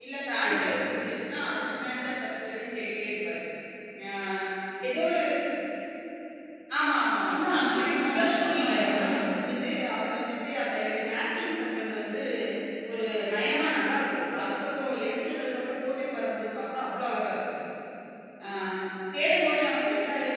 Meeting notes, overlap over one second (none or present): present